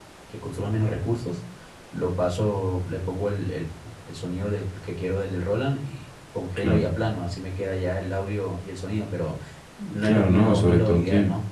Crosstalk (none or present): present